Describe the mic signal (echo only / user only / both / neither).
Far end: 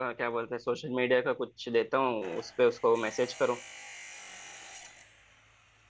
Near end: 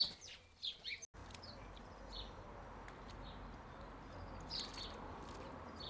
neither